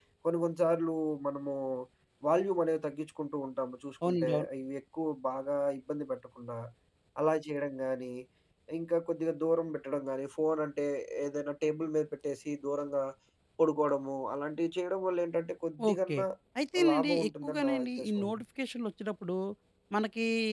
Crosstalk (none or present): present